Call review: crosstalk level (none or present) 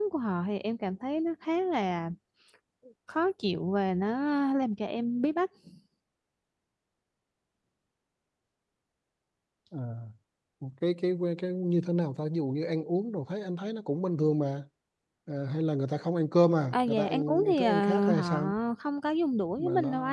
present